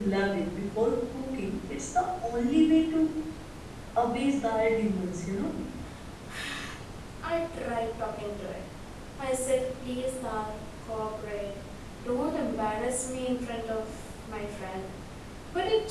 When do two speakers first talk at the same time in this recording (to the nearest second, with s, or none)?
none